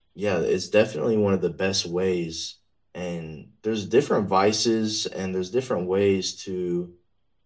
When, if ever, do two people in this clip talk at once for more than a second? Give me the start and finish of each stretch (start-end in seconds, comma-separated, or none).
none